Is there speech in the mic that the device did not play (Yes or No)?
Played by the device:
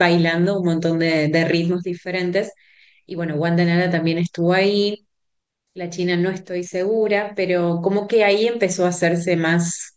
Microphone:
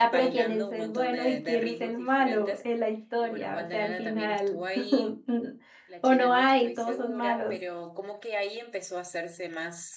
Yes